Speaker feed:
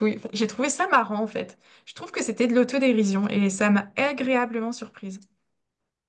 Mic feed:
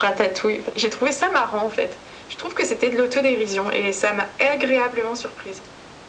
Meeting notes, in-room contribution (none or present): none